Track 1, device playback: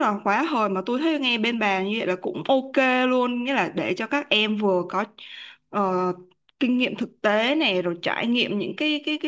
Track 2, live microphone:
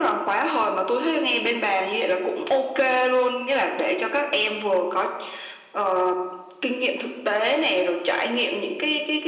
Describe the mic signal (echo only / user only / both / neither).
echo only